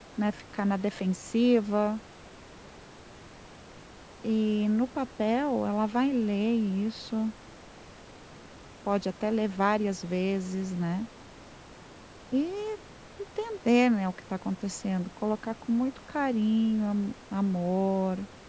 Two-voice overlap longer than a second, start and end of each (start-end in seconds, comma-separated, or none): none